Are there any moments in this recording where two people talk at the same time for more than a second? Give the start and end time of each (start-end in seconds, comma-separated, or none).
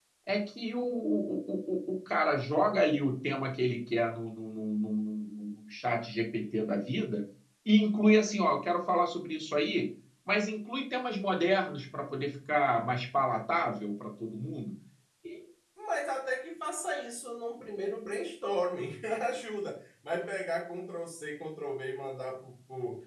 none